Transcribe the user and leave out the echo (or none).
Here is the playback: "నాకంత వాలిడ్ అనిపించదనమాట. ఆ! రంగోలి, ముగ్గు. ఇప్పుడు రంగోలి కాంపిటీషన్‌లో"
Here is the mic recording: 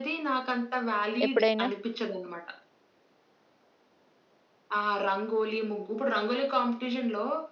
ఎప్పుడైనా?